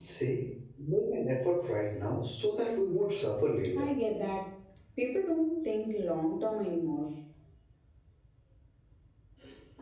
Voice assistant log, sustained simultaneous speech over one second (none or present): none